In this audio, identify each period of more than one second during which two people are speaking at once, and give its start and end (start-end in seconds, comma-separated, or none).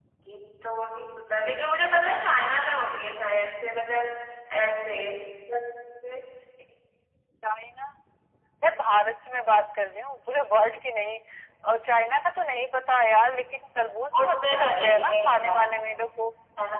14.2-15.7